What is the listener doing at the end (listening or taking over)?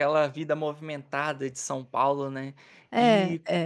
listening